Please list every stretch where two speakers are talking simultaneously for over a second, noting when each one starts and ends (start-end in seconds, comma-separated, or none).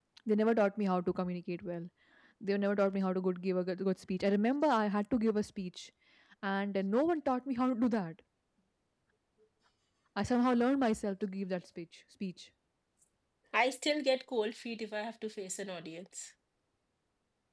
none